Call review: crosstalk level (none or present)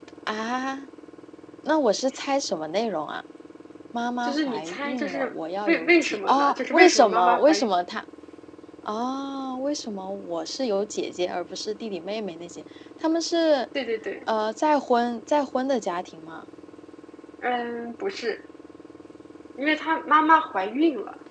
present